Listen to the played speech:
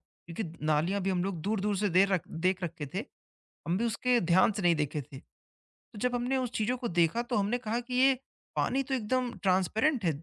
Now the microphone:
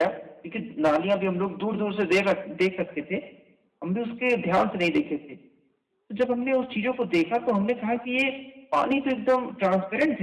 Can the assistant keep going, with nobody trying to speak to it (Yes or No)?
Yes